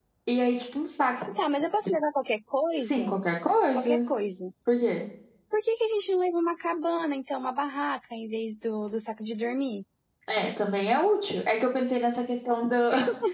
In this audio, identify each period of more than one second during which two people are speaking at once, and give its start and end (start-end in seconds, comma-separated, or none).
none